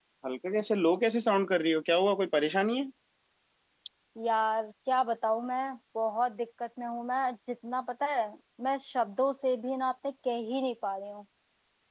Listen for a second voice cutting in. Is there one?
No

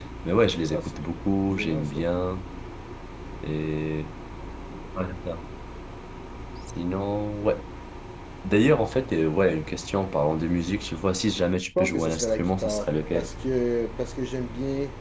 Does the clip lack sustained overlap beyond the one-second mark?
No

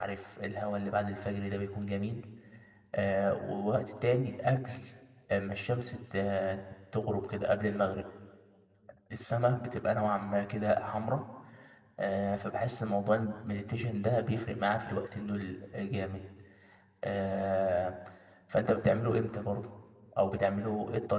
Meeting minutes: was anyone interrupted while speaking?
No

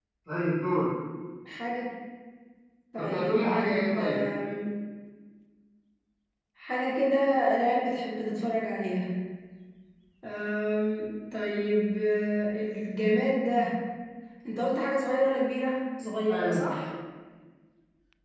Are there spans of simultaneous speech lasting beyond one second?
Yes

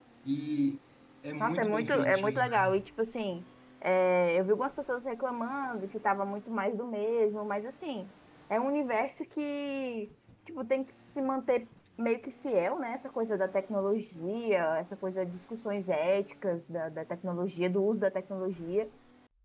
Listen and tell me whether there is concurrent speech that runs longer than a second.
Yes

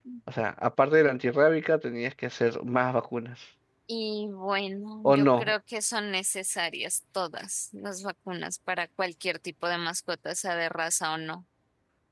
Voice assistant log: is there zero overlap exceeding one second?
Yes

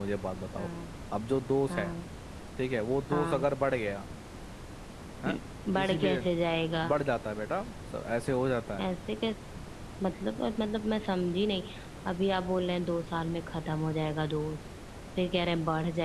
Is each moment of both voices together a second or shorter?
Yes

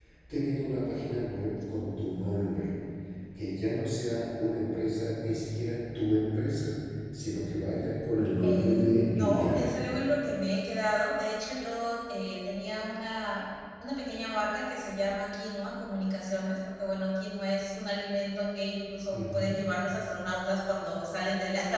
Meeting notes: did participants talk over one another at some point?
Yes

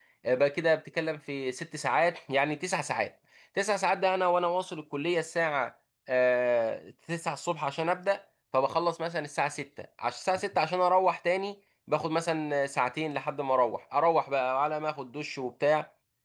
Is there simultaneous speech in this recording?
No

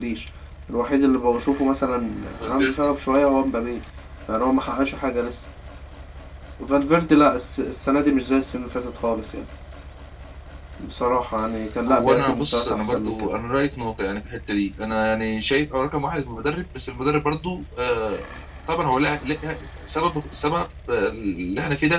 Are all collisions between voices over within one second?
No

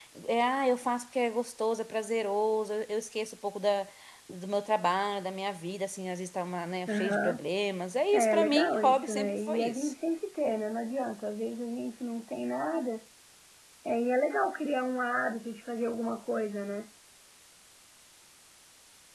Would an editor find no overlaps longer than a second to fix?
No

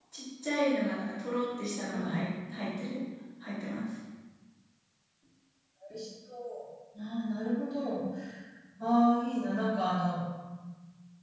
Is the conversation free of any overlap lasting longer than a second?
Yes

